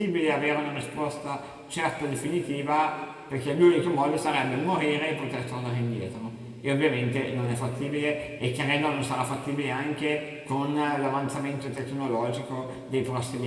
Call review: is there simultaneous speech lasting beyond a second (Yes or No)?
No